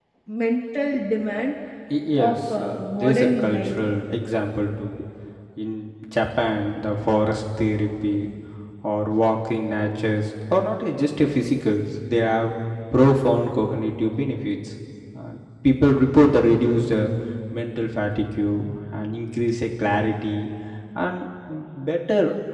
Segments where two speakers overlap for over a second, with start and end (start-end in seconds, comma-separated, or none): 2.2-3.8